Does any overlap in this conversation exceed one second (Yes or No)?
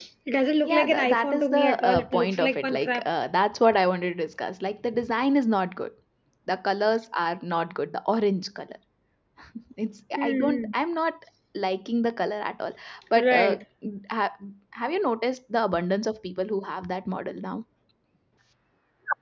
Yes